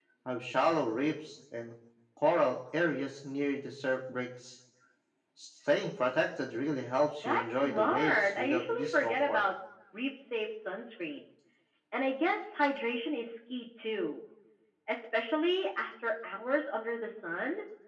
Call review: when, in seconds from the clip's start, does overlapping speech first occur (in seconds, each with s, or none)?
7.2 s